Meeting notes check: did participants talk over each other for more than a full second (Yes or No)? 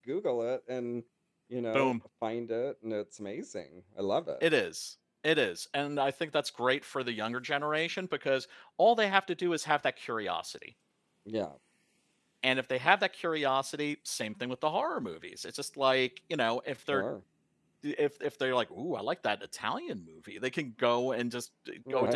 No